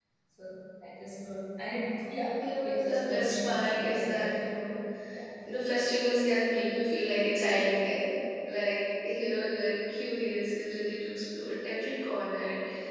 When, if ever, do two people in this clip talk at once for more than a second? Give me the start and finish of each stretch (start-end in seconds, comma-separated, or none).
2.6-4.4